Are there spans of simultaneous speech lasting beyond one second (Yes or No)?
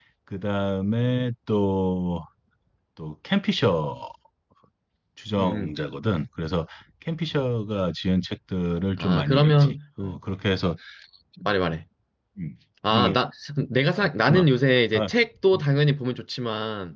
Yes